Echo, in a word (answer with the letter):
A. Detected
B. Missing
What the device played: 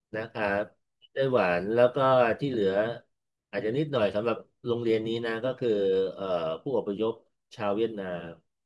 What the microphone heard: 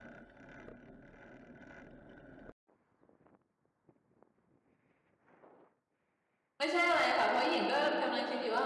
B